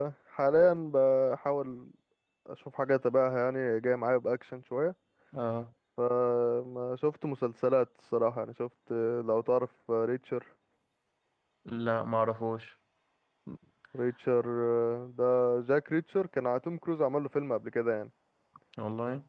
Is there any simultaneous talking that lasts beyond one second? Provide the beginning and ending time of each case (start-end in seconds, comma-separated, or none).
none